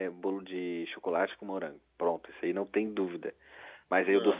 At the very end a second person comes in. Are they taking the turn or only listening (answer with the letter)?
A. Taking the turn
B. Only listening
B